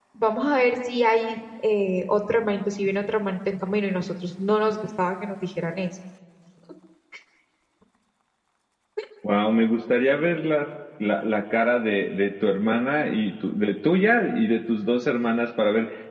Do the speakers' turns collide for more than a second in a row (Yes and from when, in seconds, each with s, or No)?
No